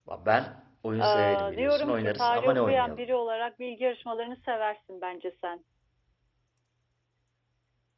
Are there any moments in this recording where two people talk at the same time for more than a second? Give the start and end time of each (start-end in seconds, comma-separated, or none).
1.0-3.0